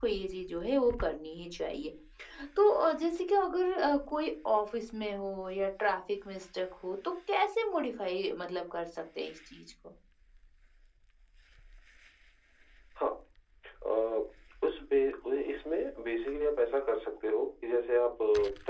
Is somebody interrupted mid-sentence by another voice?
No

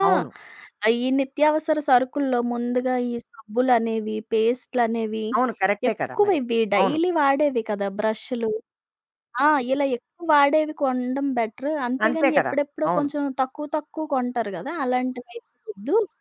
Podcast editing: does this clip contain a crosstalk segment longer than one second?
No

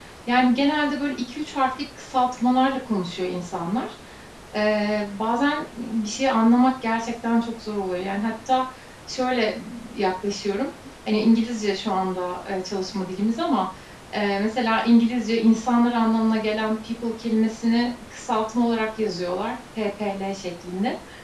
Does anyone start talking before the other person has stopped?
No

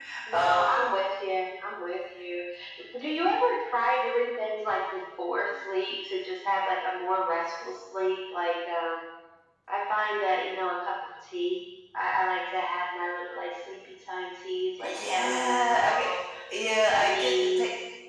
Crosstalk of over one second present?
Yes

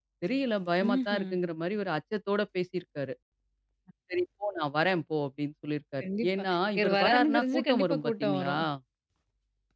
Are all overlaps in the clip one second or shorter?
No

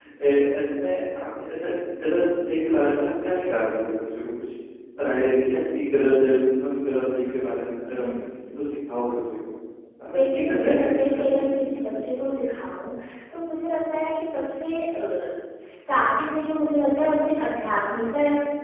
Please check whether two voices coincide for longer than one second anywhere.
Yes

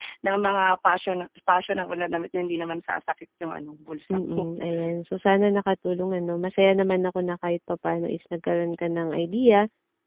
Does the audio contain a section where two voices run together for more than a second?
No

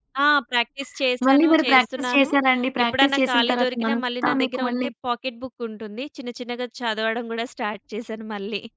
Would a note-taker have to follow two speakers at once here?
Yes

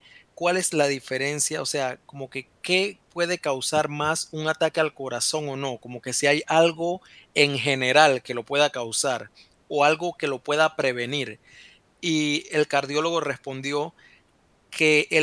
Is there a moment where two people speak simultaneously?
No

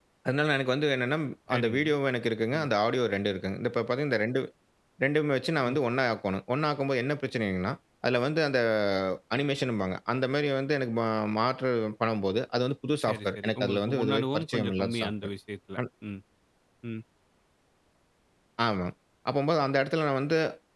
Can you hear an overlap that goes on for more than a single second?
Yes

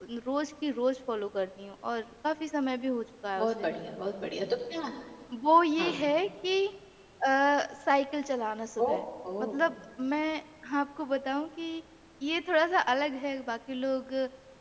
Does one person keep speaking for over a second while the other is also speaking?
No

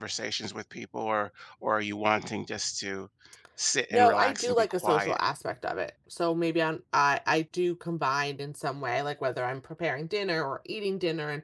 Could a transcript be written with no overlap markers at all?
No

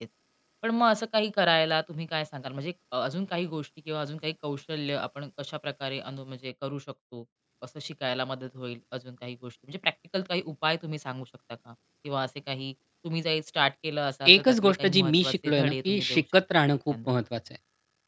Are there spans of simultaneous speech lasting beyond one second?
Yes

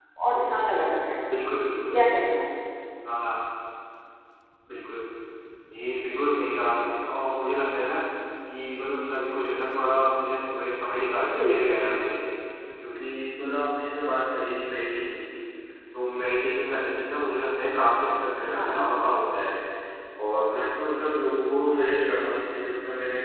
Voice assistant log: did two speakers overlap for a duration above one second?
No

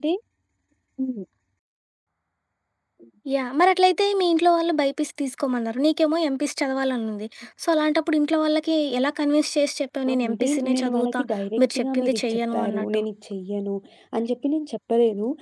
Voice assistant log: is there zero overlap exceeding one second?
No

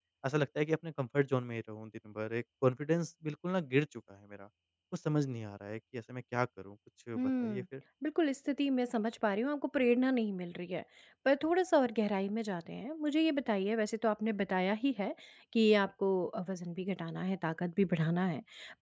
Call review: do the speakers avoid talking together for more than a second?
Yes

